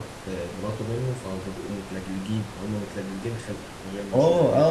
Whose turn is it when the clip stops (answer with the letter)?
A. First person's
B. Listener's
B